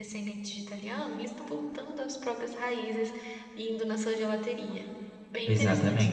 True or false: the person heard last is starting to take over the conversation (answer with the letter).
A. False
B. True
B